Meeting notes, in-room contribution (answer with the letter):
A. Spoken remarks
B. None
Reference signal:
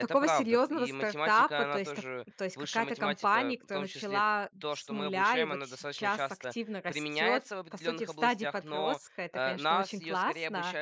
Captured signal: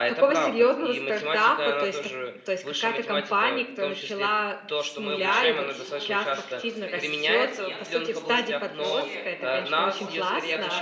A